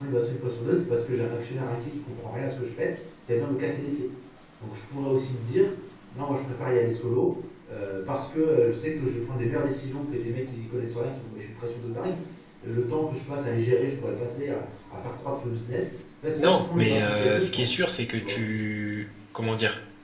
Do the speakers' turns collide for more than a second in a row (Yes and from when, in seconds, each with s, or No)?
Yes, from 16.4 s